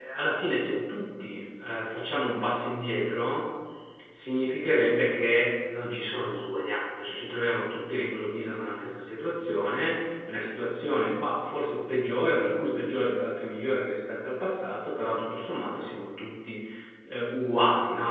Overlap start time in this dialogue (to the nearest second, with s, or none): none